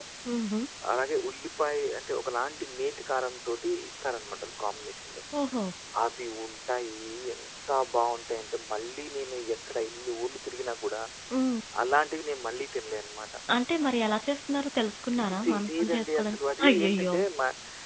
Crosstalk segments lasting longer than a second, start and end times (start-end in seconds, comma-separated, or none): 15.5-17.1